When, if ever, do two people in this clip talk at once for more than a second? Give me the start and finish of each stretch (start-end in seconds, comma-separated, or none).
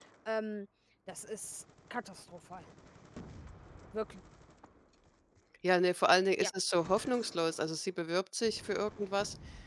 none